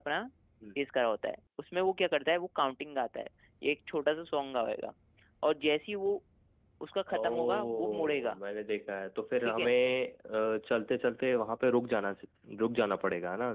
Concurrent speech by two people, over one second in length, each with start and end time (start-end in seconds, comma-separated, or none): 7.1-8.4